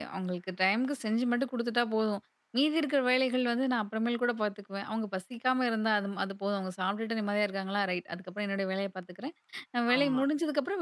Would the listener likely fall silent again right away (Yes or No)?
Yes